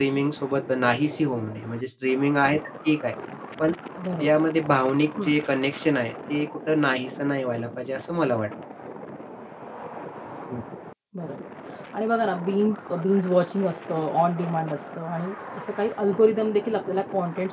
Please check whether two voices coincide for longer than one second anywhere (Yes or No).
No